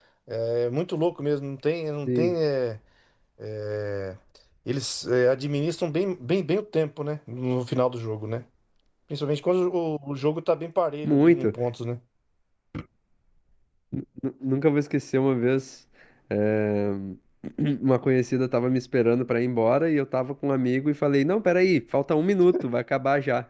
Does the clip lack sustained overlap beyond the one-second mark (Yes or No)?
Yes